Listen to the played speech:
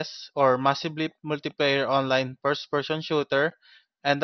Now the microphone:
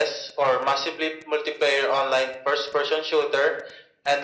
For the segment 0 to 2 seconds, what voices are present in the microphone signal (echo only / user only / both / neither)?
echo only